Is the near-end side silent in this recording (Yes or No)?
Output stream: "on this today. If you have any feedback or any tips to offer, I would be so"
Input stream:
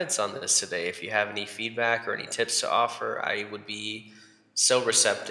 Yes